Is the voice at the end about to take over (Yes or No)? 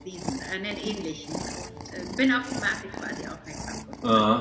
Yes